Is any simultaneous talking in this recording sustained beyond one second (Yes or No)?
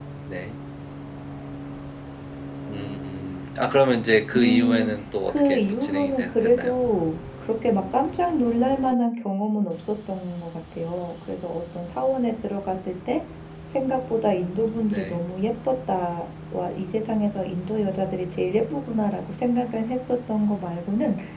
Yes